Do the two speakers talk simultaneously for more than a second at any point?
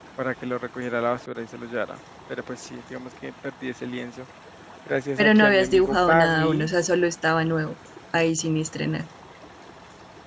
Yes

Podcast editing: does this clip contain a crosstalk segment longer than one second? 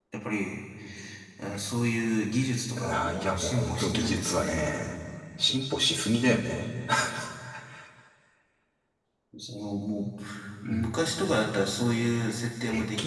Yes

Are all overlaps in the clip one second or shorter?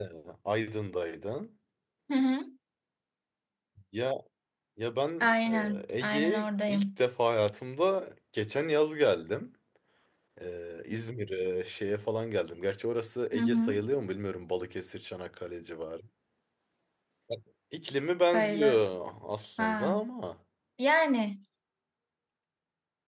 No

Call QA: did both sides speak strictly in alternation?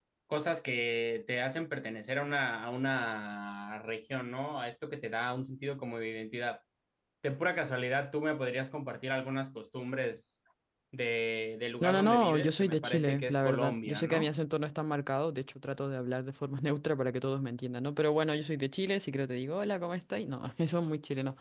No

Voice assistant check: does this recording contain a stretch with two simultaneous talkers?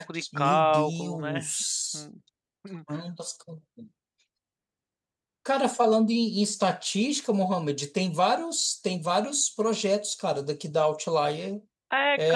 Yes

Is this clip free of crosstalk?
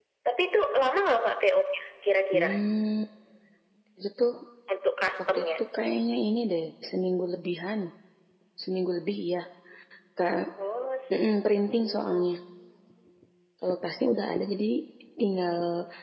No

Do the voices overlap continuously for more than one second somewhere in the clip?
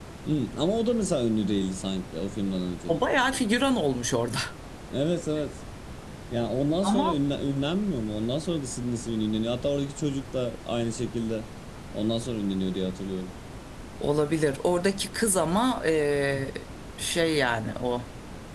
No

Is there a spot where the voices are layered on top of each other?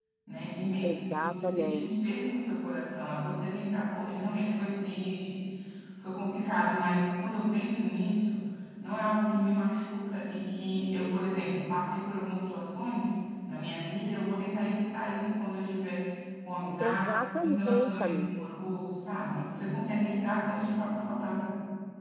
Yes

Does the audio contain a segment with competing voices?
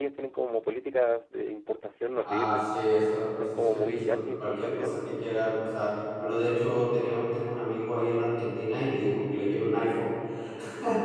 Yes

